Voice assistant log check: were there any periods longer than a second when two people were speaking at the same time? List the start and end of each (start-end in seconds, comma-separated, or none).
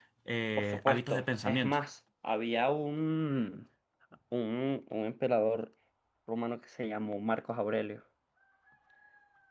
0.6-1.8